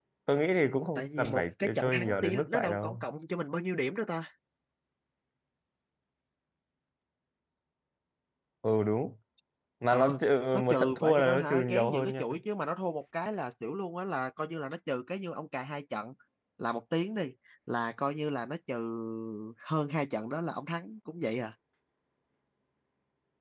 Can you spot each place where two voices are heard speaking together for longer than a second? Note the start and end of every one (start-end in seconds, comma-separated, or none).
1.0-3.0, 10.5-12.2